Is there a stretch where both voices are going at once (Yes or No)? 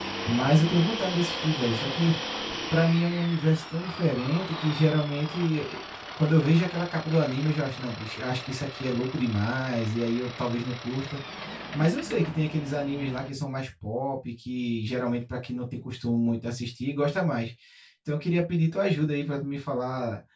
No